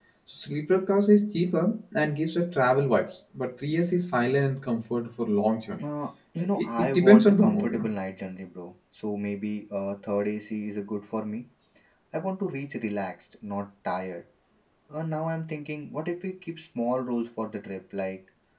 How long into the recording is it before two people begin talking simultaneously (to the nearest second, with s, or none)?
7 s